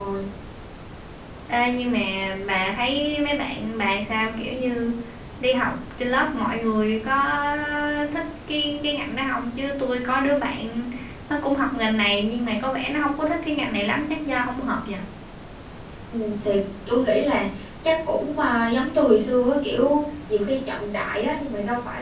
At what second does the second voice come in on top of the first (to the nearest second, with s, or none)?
none